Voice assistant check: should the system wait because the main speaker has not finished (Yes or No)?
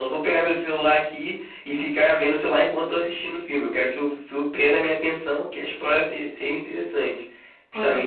Yes